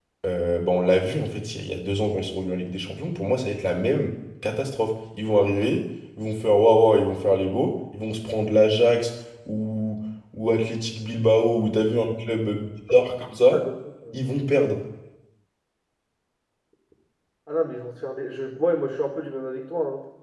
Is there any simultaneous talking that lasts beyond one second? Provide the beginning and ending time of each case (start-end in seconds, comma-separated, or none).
none